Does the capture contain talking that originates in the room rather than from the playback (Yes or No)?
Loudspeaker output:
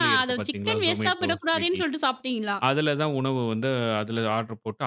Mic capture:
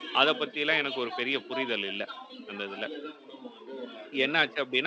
Yes